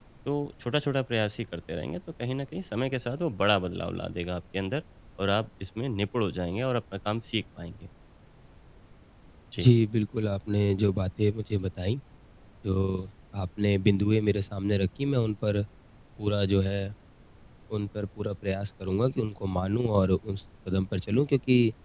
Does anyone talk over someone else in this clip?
No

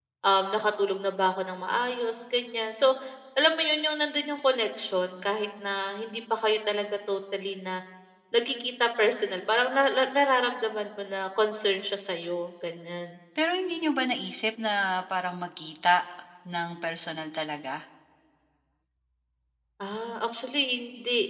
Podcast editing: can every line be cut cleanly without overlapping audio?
Yes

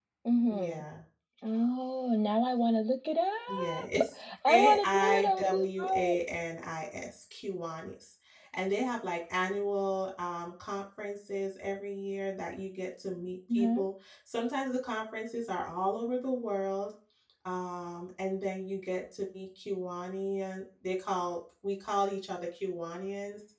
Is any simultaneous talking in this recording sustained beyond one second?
Yes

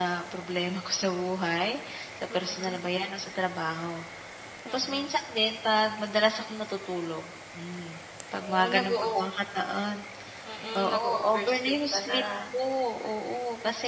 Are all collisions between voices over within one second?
No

